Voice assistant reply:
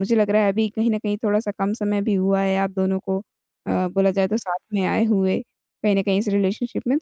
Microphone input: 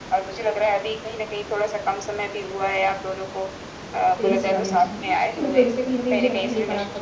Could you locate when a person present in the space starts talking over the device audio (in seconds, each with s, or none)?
4.2 s